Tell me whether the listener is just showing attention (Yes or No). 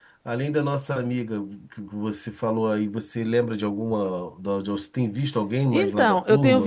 No